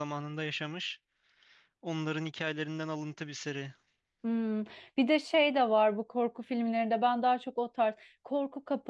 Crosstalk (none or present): none